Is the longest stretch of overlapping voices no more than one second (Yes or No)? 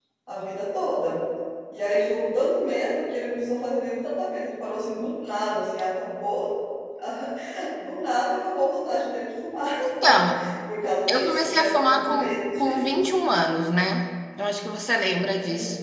No